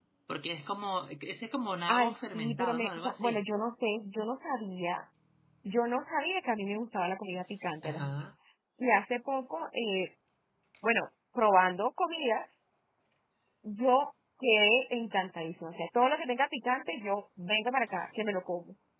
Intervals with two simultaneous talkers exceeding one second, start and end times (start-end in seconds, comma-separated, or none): 2.0-3.4